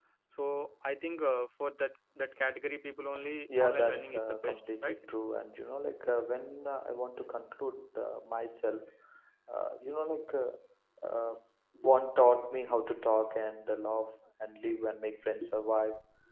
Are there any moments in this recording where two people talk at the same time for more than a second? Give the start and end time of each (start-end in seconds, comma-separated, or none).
3.6-5.0